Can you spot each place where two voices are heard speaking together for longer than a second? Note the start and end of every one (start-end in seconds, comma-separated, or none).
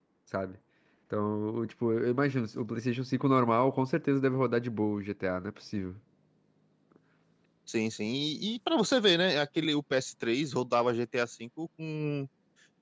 none